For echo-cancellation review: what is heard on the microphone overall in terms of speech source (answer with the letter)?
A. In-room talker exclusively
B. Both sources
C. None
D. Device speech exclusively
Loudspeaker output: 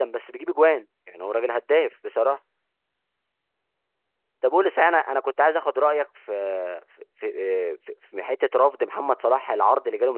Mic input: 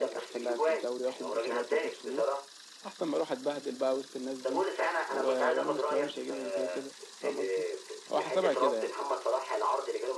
B